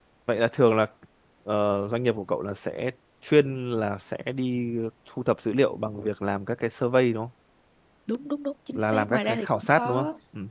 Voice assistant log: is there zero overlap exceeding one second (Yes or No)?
No